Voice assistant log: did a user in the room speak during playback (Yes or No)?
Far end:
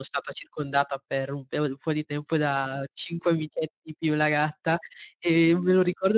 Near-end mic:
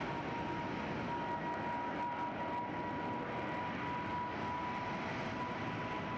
No